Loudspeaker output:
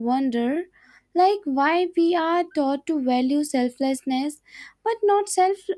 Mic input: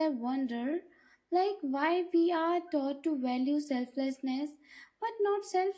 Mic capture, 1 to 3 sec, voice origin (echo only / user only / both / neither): echo only